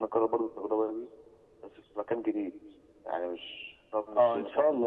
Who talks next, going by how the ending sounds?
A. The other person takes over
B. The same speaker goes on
A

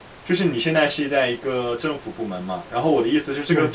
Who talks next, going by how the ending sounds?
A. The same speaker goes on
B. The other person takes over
A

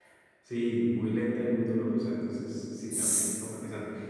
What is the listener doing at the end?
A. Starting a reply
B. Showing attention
B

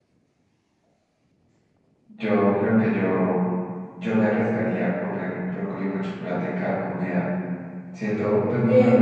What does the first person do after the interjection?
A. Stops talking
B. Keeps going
B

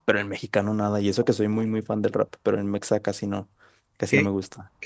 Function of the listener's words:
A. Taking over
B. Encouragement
A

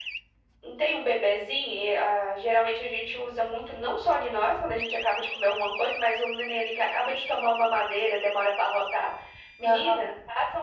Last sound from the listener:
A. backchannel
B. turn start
A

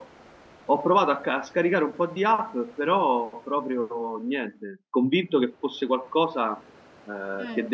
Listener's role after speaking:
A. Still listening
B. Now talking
A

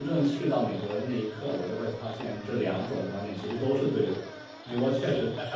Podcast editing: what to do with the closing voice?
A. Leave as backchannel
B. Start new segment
A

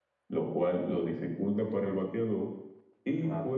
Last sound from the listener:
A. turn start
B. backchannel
B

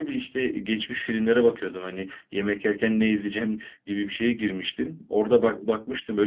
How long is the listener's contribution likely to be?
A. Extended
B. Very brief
B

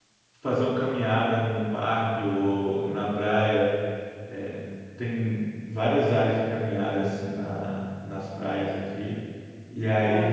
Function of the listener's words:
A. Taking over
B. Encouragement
B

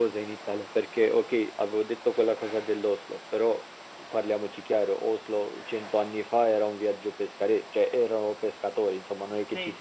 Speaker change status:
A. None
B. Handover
A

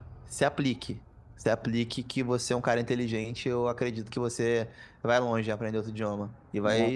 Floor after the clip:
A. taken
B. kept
B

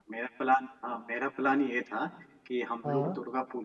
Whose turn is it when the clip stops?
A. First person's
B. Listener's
A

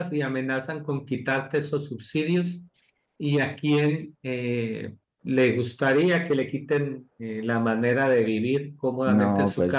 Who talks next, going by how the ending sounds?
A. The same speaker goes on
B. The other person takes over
A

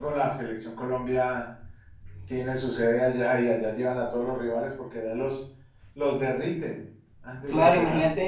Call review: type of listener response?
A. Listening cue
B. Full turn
B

